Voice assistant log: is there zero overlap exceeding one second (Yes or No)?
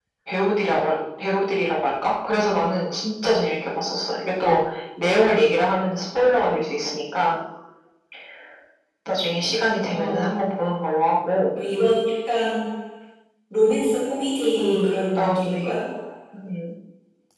No